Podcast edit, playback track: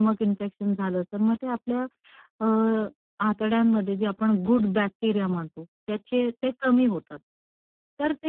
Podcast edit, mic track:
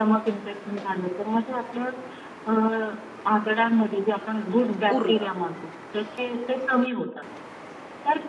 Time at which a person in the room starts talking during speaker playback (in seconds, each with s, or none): 5.0 s